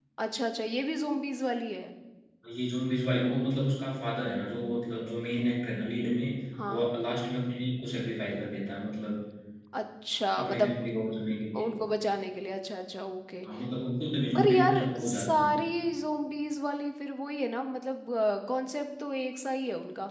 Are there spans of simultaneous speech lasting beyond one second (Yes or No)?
Yes